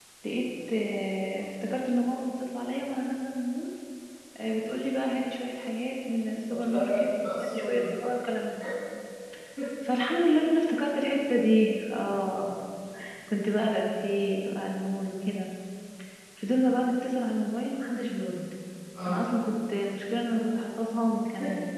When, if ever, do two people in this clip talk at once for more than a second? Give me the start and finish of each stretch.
6.5-7.8

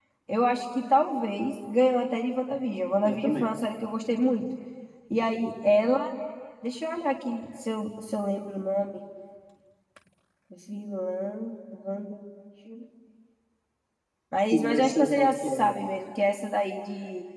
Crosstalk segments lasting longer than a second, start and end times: 14.5-15.7

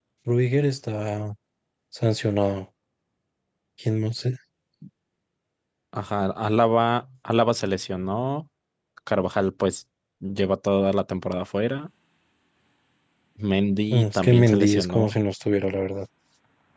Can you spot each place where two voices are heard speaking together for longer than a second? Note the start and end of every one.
13.9-15.2

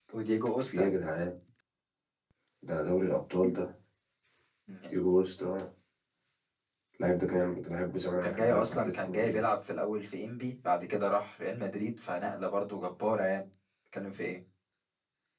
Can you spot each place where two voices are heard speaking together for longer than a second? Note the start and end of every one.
8.1-9.4

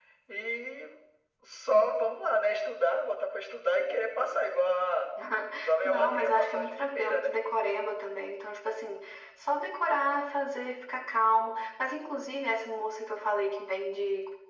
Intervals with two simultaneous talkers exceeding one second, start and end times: 5.8-7.3

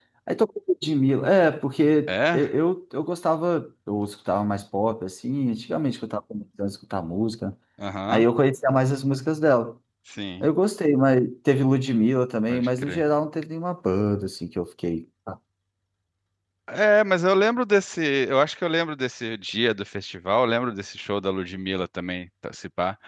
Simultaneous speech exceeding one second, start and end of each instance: none

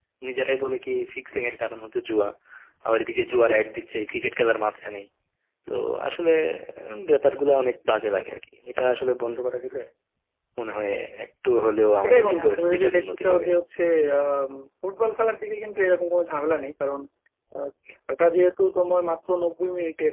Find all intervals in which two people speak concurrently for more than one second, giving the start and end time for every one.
12.0-13.5

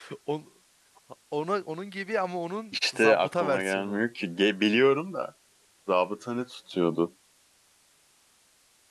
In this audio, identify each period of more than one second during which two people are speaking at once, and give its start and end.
2.7-4.0

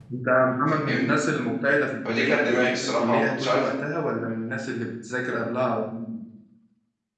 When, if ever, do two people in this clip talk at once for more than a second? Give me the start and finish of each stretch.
2.1-3.7

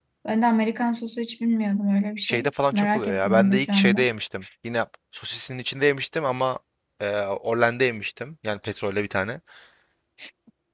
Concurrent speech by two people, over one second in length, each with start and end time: 2.2-4.0

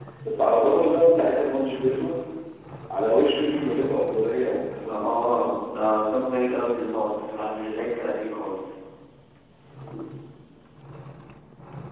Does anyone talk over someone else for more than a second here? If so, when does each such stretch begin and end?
none

